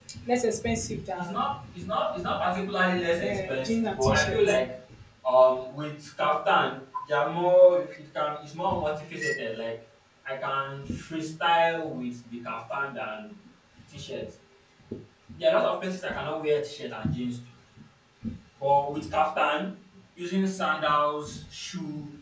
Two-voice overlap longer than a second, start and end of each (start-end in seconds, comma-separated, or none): 3.2-4.6